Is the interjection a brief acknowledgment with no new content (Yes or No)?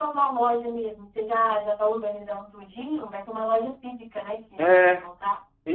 No